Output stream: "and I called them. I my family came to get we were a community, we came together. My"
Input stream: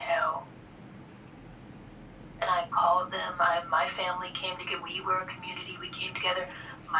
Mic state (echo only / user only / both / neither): echo only